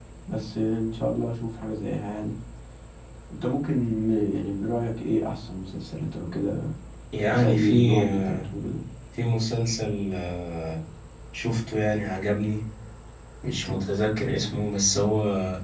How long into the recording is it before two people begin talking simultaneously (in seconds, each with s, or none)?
7.3 s